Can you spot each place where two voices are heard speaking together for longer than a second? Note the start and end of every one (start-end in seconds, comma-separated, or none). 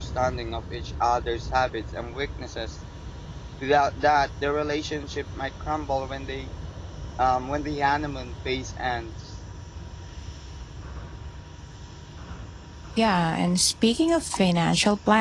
none